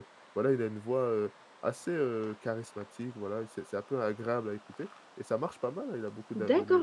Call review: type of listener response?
taking over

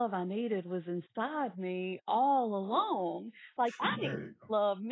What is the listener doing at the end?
listening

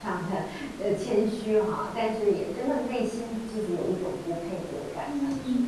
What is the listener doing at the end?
taking over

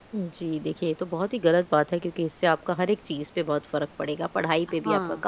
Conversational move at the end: listening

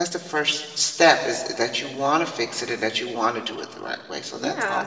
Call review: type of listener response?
taking over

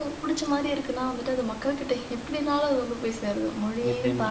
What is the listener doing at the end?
taking over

